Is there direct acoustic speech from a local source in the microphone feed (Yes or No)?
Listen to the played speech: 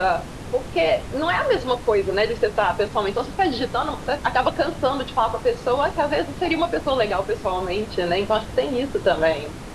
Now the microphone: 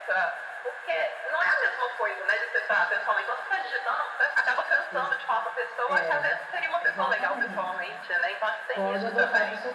Yes